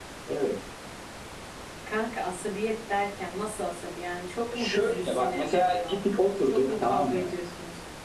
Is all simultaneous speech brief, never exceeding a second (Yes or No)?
No